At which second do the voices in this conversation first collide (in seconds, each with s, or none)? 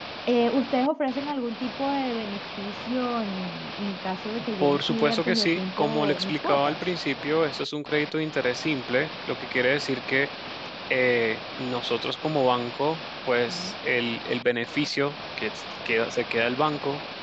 4.6 s